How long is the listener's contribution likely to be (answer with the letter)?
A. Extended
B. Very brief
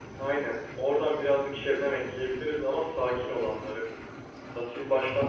B